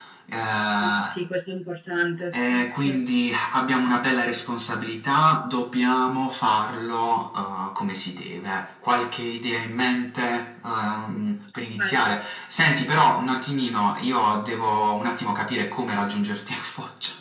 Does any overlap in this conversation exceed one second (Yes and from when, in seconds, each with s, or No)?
No